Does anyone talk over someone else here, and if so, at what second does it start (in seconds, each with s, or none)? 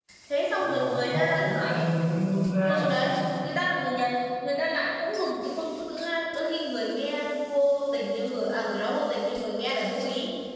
0.6 s